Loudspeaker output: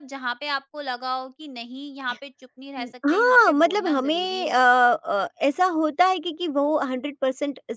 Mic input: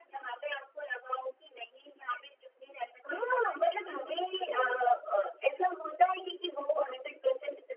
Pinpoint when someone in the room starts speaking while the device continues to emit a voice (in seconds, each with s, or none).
4.5 s